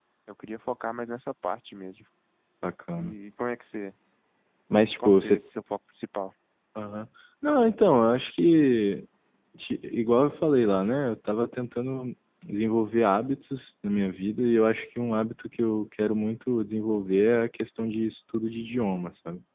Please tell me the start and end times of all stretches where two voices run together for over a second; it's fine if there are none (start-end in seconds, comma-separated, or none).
none